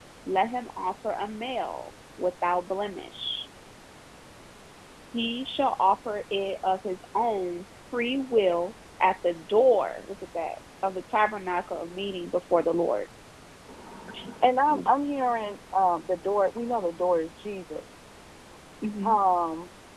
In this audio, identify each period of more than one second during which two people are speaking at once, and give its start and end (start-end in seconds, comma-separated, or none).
none